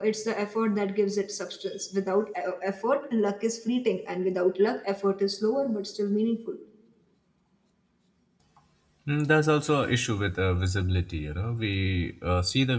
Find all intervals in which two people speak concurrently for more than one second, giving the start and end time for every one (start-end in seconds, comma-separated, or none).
none